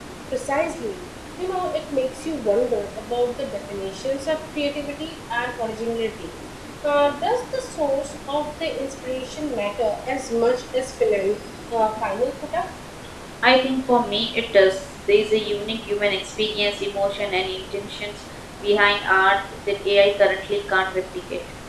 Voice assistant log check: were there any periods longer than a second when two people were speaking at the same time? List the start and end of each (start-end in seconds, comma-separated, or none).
none